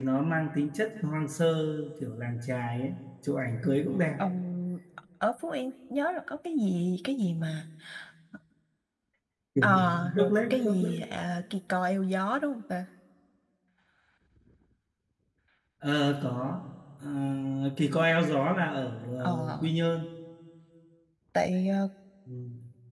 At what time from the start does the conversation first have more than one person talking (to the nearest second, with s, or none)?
10 s